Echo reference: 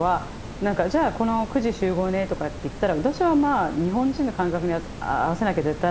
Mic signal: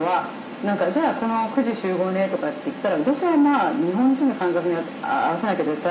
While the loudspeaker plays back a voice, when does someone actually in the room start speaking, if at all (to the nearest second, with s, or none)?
none